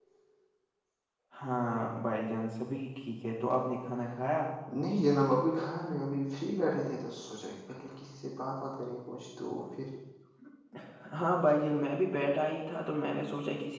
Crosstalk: none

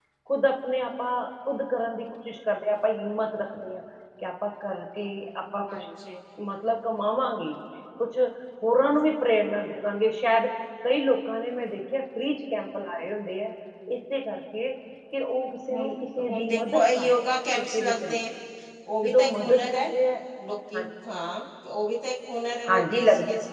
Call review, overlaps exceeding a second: present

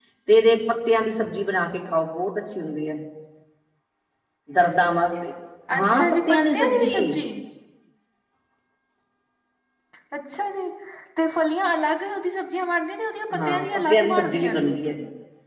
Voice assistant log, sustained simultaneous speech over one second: present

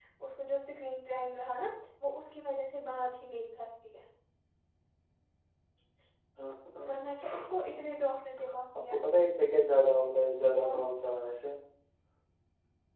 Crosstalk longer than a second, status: none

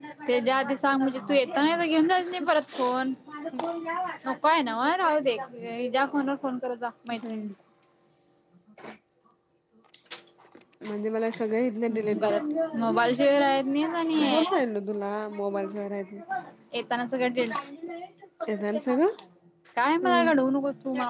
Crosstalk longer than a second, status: none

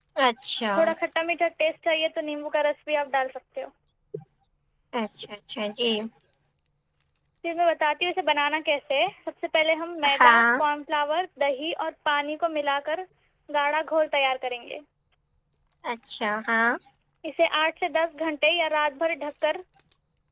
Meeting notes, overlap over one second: none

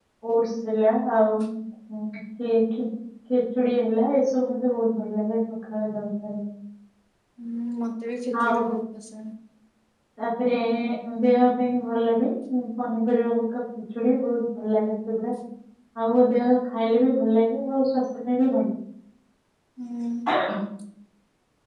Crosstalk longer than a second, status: none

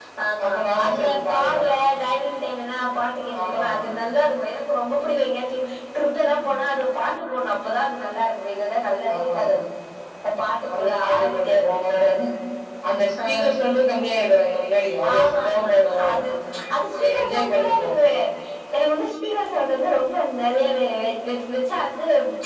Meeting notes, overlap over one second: present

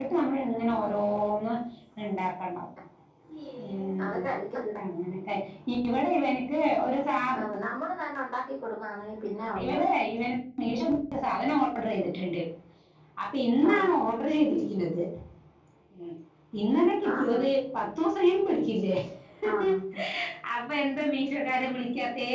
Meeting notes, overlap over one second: none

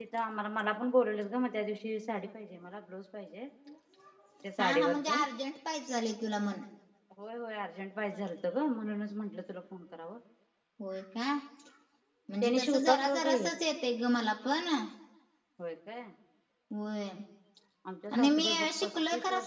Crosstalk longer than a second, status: present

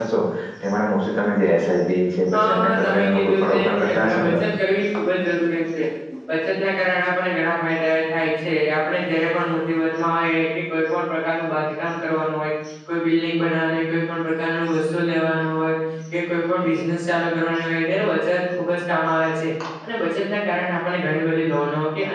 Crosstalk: present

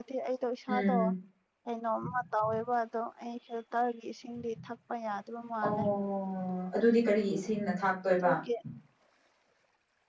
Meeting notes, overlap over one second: none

